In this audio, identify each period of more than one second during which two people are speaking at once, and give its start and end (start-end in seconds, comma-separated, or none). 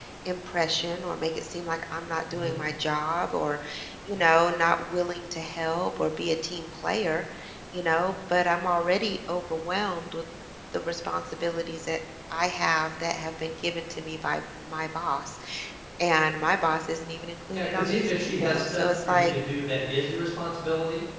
17.5-19.4